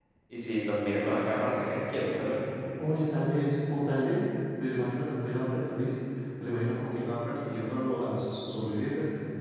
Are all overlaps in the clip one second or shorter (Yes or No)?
Yes